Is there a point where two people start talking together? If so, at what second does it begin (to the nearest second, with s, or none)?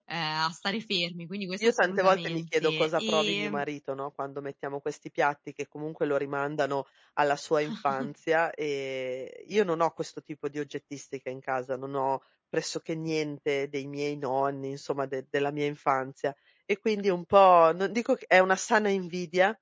2 s